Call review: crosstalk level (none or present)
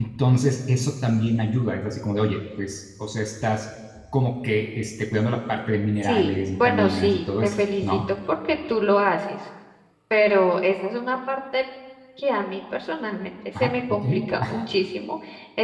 present